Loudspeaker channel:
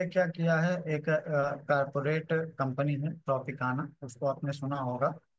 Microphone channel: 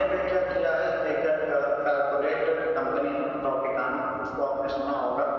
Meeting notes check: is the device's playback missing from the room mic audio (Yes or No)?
No